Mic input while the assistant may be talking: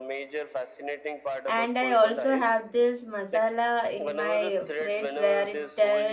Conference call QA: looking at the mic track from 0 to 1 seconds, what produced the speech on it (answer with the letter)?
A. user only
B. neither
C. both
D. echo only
D